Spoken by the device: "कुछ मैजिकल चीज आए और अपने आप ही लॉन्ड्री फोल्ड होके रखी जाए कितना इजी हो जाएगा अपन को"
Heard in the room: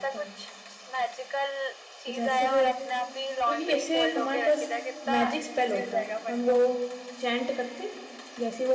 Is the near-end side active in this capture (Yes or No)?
Yes